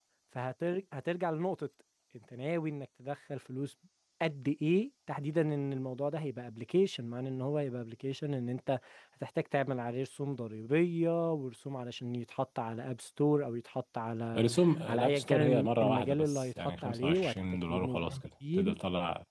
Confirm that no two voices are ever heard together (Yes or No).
No